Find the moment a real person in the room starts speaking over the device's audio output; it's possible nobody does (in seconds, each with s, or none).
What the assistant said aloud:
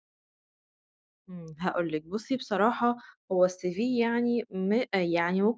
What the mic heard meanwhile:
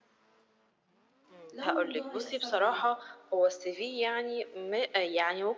1.5 s